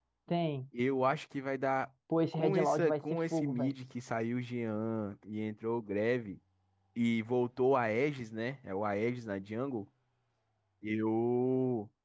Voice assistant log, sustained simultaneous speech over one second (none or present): present